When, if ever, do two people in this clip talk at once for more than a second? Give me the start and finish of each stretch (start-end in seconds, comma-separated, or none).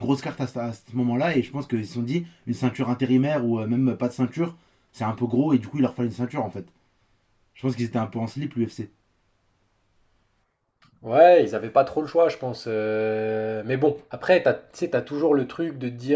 none